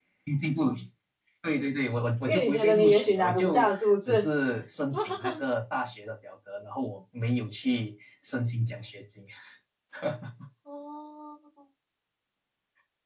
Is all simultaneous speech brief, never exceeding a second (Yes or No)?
No